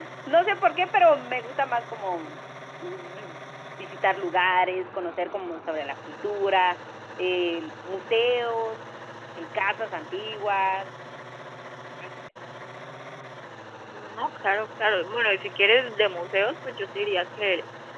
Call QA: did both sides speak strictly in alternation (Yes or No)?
Yes